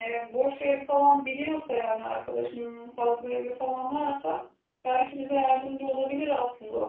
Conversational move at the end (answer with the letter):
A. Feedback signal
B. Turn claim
B